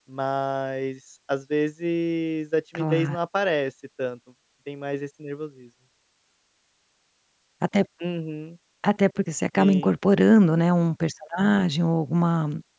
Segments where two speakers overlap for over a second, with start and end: none

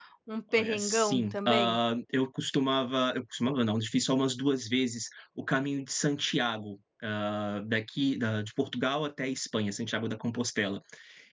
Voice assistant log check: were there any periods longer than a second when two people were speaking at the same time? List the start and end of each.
0.5-1.8

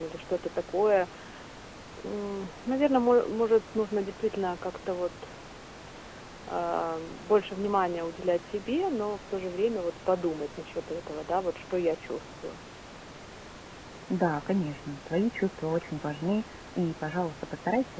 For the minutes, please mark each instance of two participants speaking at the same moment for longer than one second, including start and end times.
none

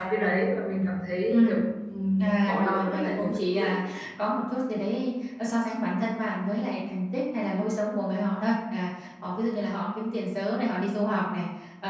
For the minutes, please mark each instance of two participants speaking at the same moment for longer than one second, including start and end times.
2.2-3.7

